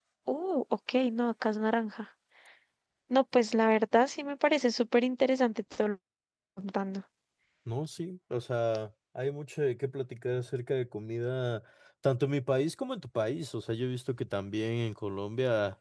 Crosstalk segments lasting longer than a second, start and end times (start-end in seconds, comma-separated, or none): none